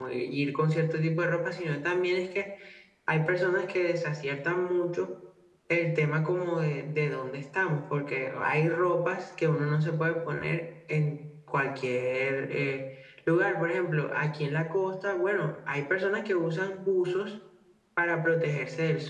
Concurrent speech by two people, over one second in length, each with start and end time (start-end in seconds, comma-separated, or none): none